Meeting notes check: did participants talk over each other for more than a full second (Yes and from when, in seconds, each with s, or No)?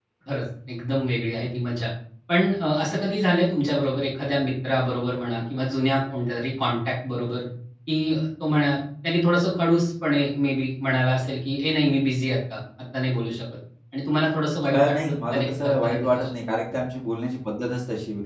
Yes, from 14.7 s